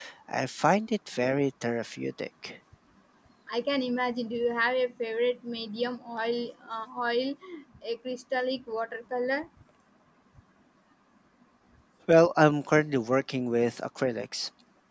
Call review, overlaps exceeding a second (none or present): none